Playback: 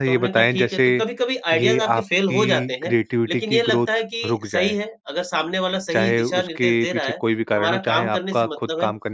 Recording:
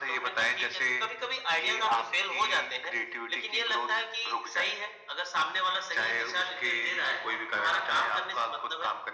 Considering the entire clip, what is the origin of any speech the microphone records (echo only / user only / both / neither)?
echo only